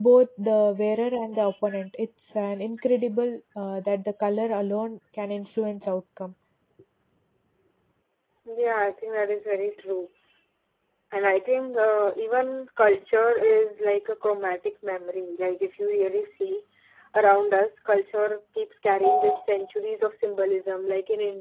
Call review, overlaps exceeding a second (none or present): none